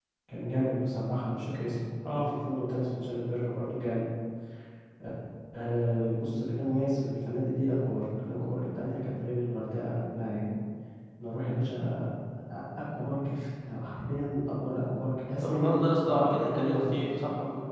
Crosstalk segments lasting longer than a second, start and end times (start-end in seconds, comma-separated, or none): 15.4-17.2